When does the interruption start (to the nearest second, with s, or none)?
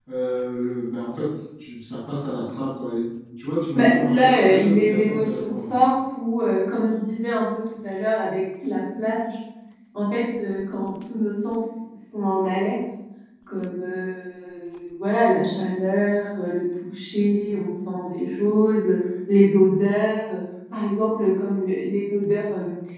4 s